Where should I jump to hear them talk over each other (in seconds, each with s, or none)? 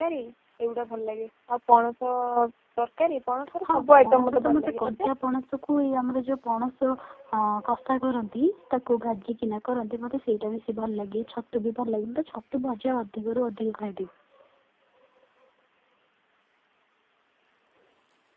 3.6 s